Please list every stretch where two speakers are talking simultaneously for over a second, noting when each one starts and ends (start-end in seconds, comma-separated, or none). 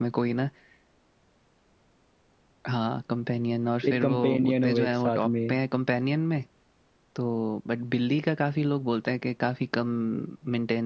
3.9-5.5